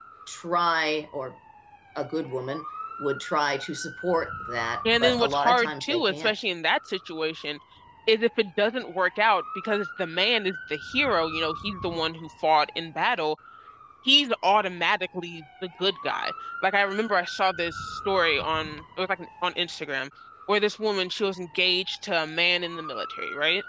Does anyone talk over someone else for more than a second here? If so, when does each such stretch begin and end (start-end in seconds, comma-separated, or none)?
5.0-6.4